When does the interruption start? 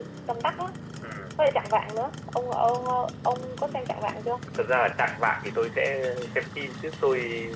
none

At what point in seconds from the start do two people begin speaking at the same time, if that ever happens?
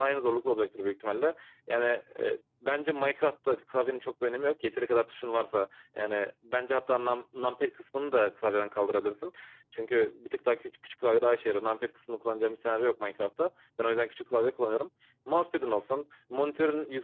none

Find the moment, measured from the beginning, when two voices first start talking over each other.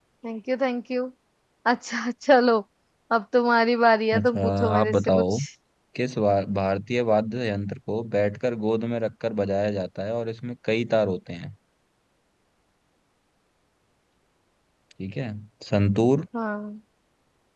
4 s

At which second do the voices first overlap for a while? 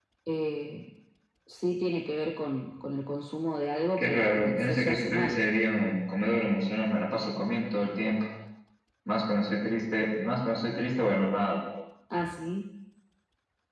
4 s

